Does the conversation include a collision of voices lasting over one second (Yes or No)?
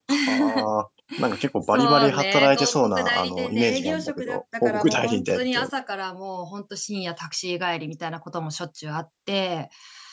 Yes